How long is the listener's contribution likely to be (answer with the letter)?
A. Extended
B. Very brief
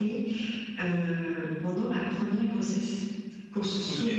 B